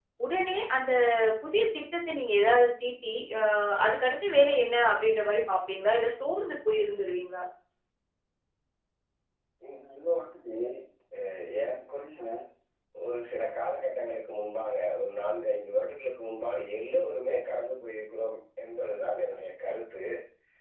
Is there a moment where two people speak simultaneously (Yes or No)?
No